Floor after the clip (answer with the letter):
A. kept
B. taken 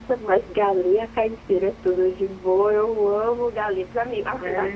A